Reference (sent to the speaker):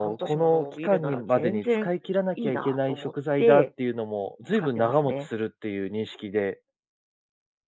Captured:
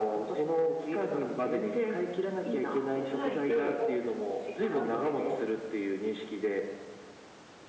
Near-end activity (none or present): present